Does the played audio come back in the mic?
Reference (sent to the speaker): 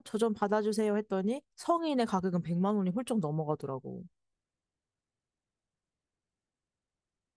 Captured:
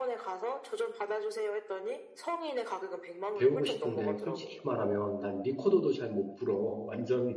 Yes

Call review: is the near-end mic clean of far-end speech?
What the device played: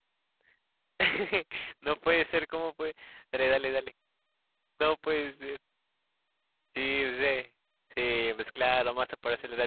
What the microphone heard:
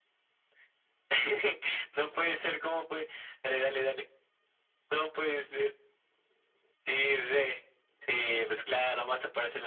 No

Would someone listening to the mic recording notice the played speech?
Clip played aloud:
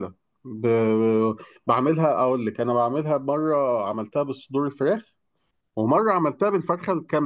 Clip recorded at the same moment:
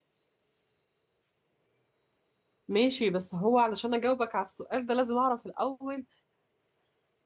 No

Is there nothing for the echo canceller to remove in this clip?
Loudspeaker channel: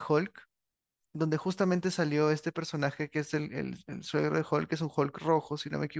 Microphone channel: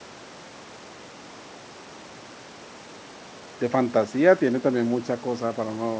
Yes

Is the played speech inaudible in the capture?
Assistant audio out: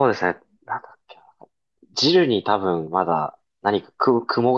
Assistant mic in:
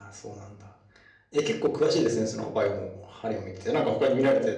Yes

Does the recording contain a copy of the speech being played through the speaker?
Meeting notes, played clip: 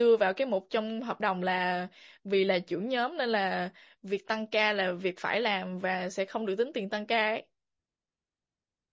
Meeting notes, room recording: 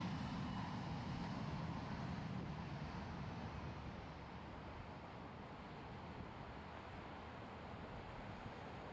No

